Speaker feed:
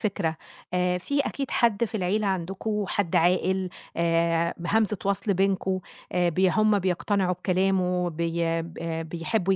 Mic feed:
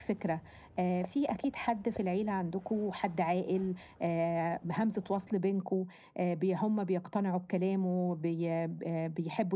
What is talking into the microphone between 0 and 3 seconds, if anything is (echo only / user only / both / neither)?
echo only